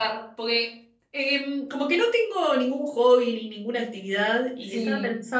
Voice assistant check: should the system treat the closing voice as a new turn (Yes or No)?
No